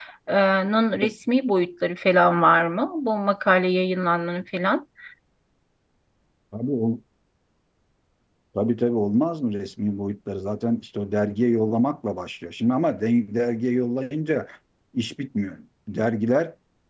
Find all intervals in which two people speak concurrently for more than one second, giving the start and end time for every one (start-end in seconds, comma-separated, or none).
none